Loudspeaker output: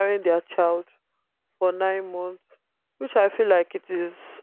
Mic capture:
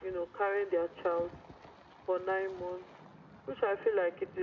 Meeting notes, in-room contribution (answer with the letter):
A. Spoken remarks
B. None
B